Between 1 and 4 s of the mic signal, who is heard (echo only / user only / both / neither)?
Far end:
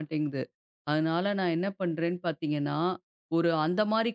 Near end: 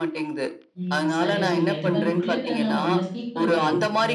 both